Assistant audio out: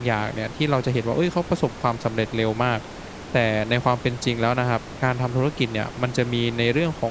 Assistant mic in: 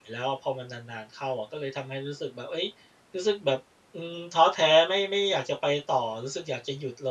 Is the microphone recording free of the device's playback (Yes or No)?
Yes